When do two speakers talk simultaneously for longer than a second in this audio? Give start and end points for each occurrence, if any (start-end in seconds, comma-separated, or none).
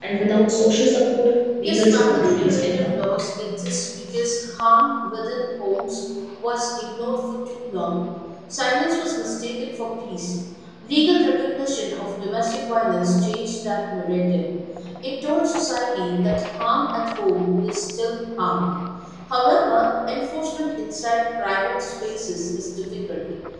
1.6-2.9